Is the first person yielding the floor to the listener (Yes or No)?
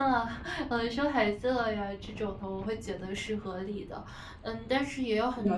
No